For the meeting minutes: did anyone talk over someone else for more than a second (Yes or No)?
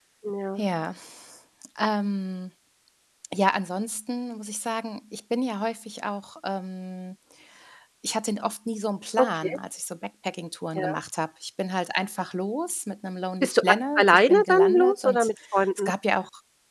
Yes